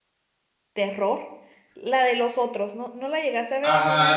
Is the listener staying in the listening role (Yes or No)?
No